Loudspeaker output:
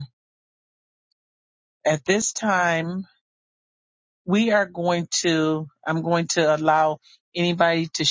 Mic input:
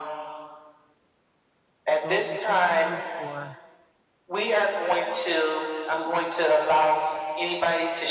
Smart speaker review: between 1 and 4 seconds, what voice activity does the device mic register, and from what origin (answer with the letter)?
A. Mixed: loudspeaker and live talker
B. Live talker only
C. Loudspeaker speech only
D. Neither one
A